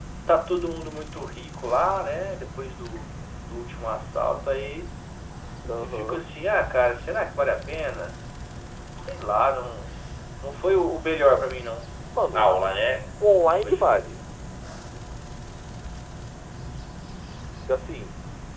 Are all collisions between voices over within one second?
Yes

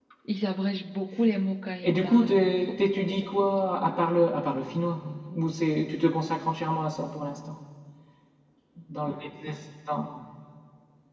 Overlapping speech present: Yes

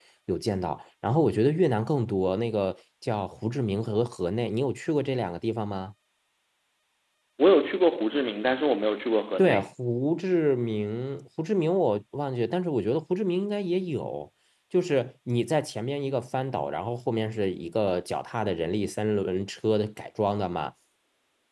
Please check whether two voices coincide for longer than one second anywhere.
No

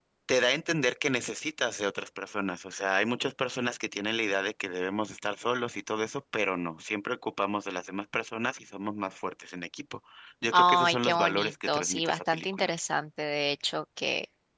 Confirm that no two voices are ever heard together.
No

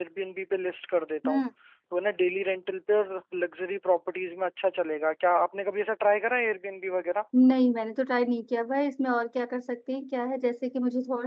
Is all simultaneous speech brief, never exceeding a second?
Yes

